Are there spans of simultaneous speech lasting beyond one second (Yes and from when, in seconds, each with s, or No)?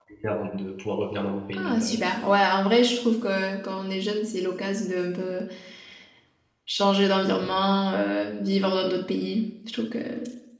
No